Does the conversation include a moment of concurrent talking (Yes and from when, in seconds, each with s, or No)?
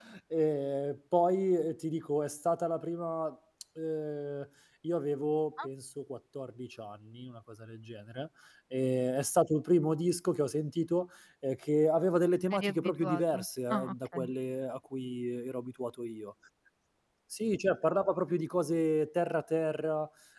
Yes, from 12.5 s